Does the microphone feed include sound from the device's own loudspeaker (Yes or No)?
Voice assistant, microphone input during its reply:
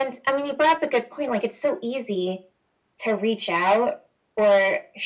Yes